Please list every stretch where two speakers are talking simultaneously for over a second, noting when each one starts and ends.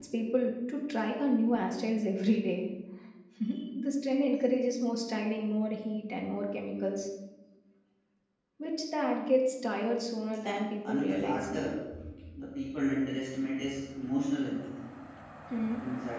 10.4-11.7

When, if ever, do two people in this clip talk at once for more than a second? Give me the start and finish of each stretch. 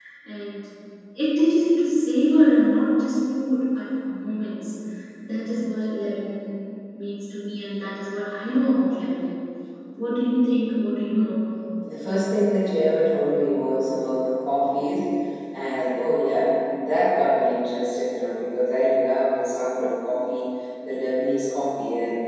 none

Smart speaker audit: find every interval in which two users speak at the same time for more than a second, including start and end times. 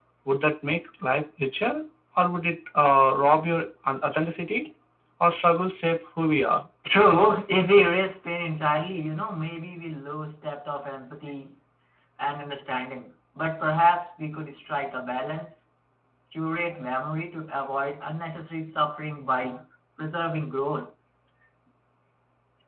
none

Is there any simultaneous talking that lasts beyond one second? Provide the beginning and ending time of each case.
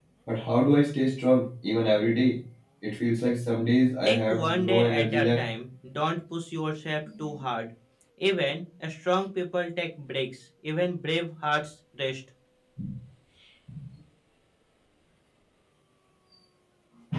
4.0-5.5

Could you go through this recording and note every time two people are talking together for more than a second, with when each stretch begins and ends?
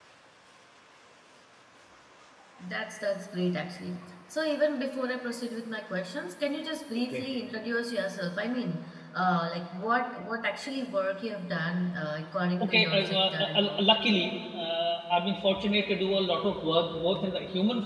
12.6-13.8

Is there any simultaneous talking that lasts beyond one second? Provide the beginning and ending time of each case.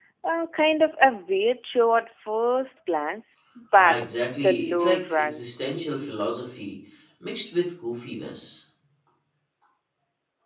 3.8-6.2

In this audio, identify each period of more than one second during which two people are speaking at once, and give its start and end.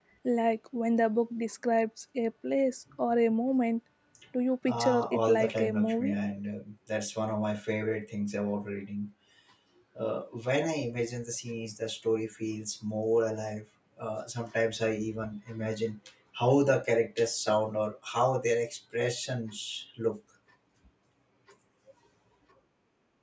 4.7-6.1

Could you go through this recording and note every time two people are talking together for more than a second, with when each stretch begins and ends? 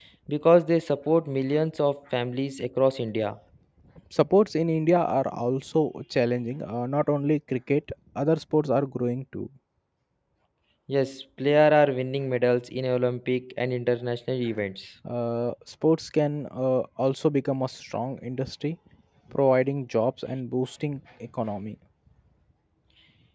none

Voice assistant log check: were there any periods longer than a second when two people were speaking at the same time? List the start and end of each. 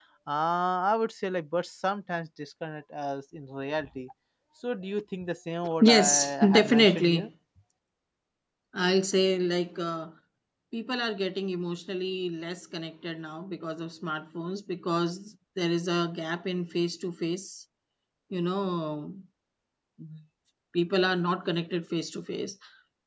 5.8-7.3

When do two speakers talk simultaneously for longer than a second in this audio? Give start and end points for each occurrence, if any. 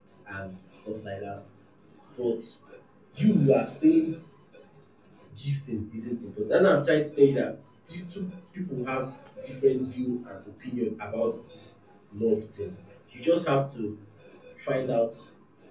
none

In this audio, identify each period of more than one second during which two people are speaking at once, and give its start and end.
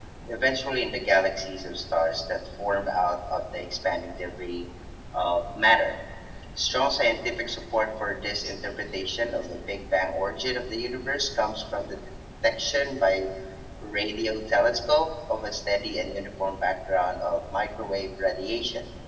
none

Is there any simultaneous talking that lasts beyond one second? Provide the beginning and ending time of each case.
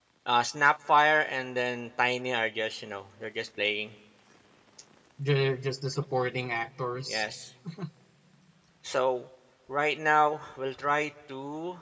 none

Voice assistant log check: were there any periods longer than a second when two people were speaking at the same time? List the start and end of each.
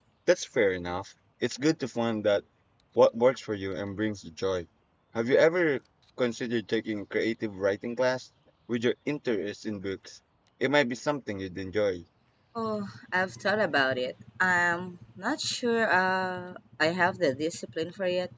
none

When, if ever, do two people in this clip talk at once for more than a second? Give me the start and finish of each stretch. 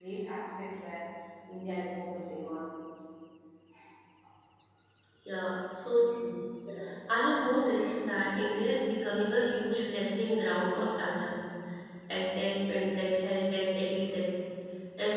none

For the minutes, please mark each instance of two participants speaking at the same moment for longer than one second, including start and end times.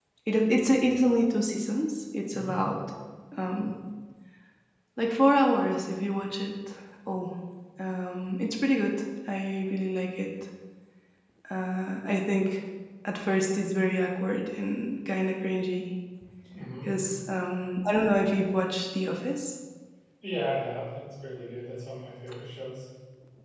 none

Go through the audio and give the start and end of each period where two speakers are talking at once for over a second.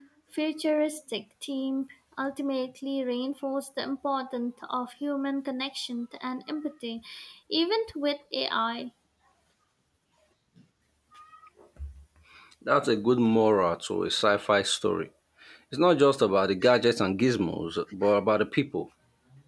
none

